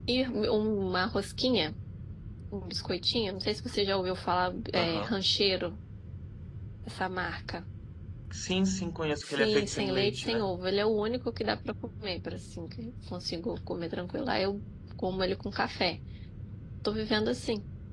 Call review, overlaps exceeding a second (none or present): present